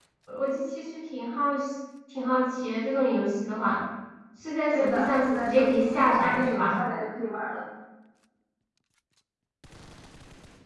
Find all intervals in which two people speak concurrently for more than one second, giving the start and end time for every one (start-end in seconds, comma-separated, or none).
4.7-6.8